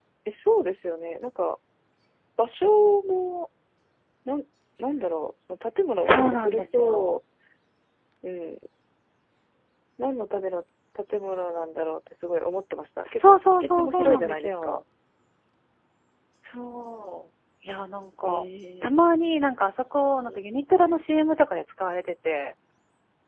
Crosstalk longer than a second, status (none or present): present